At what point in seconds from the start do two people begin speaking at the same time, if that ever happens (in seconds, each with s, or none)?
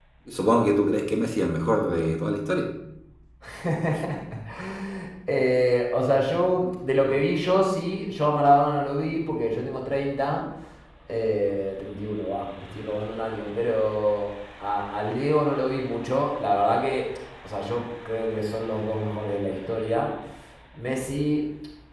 none